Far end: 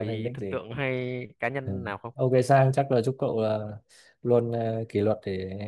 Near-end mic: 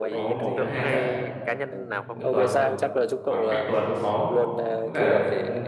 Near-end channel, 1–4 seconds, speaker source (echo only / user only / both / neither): both